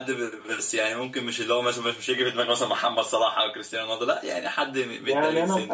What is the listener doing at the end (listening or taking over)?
taking over